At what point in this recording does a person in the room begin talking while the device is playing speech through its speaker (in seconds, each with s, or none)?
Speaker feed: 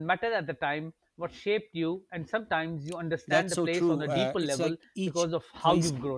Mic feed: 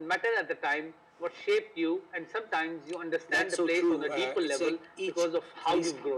none